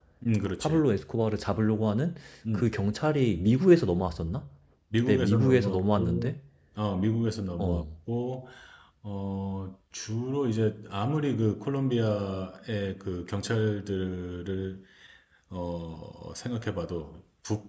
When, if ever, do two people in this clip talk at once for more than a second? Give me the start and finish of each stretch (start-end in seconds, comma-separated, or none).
5.0-6.3